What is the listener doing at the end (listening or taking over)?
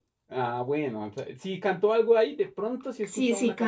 taking over